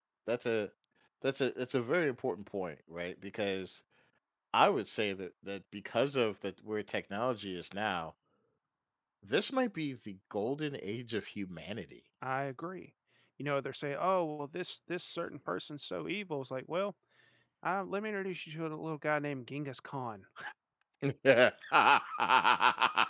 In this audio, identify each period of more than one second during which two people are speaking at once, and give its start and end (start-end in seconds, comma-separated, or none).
none